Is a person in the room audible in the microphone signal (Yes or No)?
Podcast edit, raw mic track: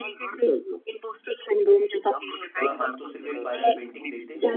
Yes